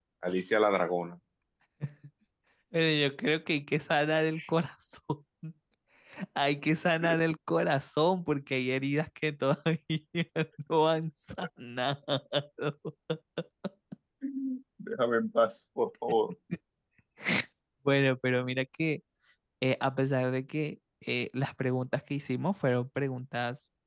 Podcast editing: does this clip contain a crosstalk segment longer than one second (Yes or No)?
No